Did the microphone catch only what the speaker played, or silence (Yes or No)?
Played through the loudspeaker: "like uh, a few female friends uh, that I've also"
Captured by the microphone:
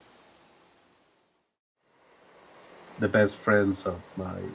No